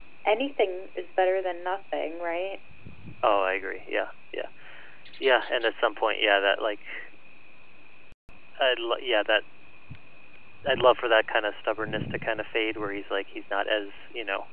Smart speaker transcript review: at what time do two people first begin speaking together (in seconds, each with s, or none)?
none